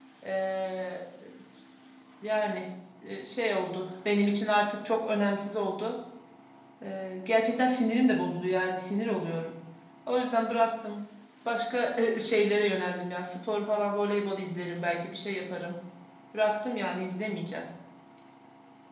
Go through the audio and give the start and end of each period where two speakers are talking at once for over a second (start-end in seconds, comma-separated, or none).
none